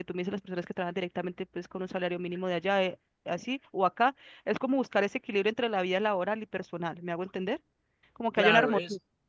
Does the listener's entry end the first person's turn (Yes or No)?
Yes